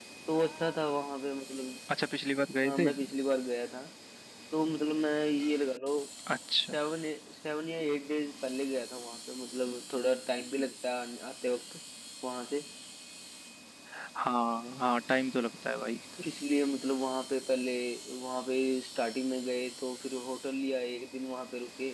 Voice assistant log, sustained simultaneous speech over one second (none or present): none